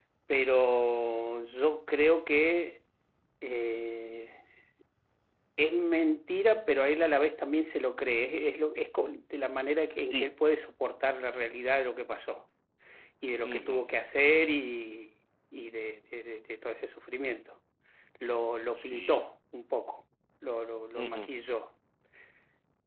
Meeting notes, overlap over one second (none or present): none